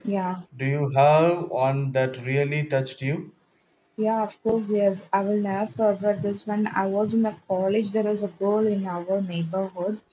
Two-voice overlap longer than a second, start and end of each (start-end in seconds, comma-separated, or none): none